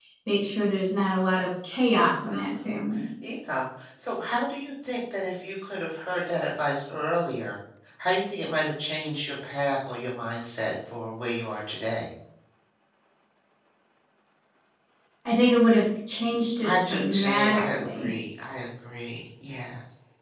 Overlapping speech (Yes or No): Yes